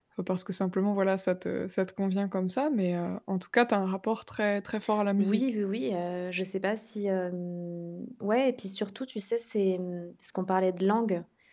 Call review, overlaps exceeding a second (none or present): none